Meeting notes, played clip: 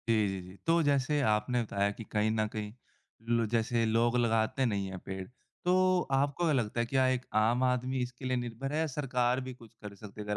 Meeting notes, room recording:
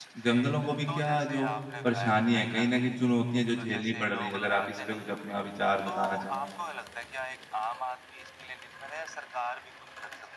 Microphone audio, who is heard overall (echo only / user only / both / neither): both